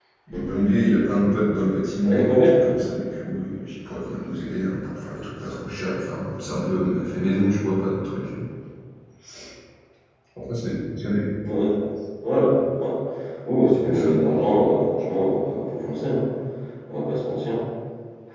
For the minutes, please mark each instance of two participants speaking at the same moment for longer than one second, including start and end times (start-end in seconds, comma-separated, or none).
none